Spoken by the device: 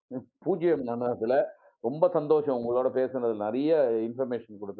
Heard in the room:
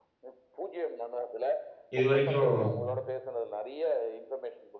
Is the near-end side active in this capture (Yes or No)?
Yes